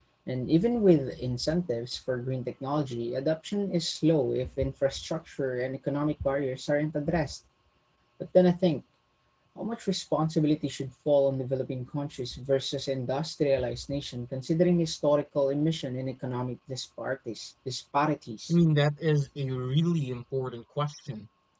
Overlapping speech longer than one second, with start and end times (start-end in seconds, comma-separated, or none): none